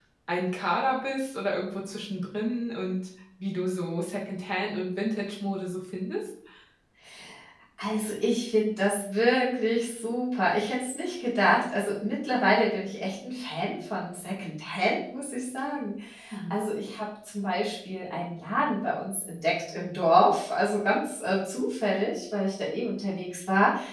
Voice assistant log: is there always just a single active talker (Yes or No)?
Yes